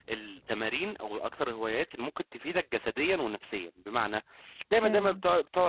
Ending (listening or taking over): listening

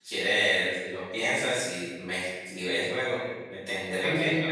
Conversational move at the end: taking over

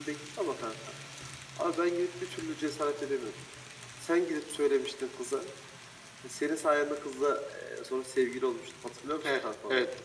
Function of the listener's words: taking over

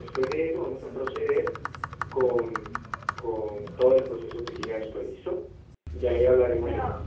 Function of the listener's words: listening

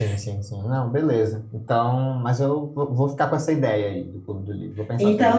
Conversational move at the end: taking over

